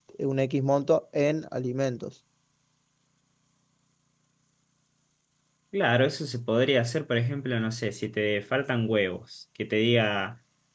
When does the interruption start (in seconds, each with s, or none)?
none